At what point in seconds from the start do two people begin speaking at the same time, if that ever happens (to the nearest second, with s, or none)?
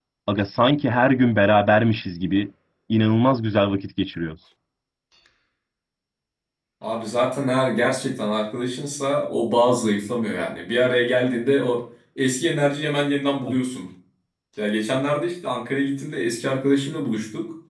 none